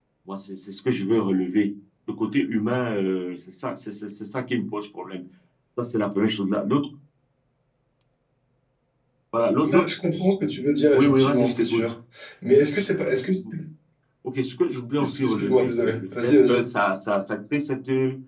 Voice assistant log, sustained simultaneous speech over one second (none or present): present